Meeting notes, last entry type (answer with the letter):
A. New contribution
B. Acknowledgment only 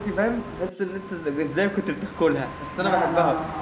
A